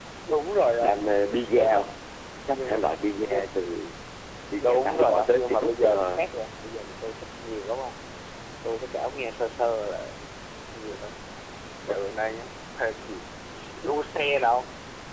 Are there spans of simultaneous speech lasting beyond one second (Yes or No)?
Yes